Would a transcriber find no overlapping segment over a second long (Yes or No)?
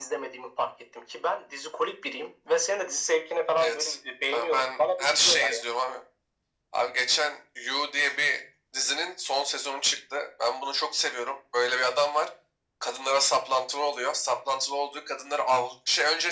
No